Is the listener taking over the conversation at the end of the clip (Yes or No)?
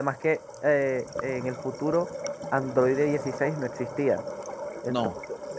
No